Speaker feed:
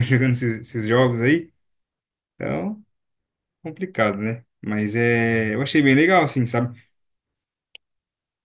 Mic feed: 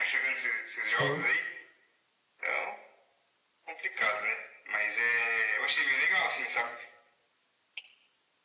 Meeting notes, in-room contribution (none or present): present